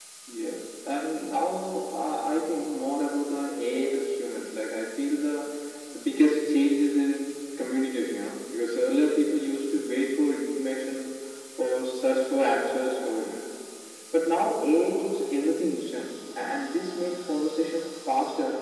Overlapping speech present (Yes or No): No